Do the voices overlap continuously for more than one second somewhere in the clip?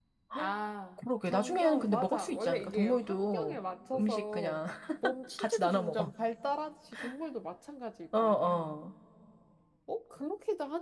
Yes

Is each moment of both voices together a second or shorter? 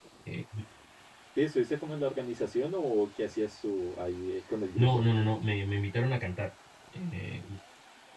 Yes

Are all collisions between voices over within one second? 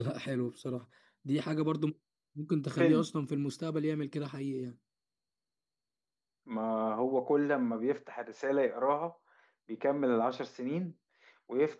Yes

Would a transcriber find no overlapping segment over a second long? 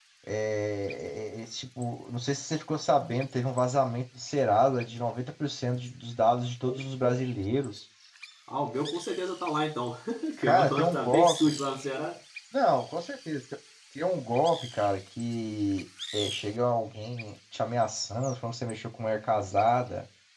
No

